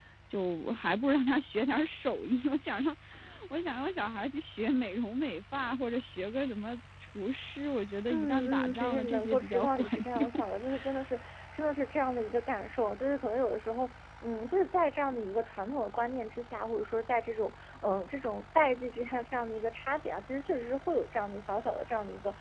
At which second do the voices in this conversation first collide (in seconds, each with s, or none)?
8.1 s